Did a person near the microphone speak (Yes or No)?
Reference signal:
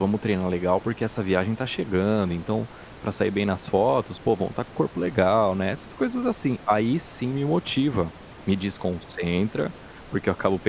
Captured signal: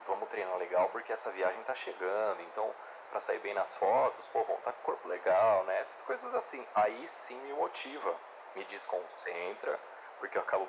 No